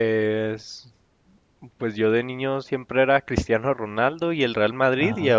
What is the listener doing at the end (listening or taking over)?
listening